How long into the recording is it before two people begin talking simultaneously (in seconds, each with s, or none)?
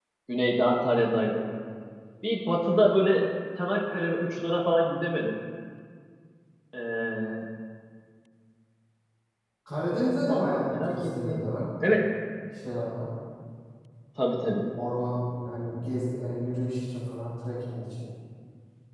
10.3 s